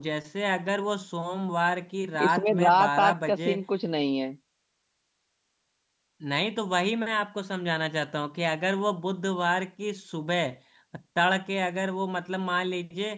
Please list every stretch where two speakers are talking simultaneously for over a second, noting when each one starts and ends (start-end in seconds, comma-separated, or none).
2.3-3.6